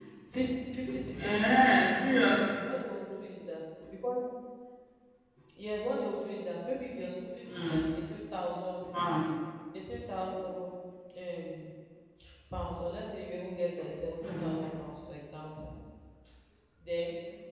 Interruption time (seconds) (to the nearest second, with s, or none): 1 s